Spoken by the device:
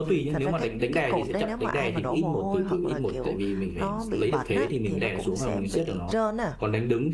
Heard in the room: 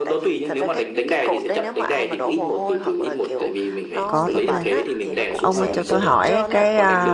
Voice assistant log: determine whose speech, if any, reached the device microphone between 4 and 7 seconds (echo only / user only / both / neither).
both